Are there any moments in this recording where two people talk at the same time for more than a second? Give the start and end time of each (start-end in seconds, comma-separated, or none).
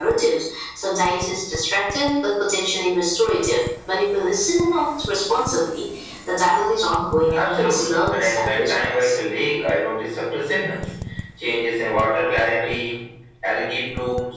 7.4-9.1